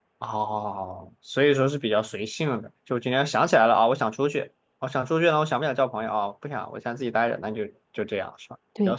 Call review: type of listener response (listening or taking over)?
taking over